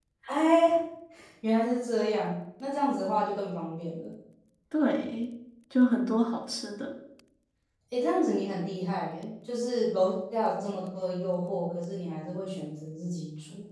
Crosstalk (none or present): none